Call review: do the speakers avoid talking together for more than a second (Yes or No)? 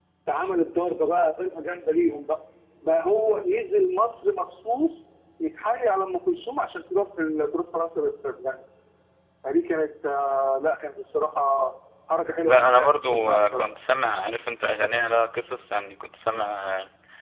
No